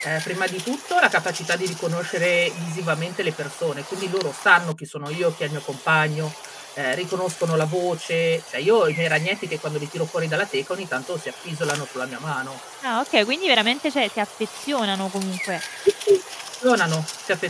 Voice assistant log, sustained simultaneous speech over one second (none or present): none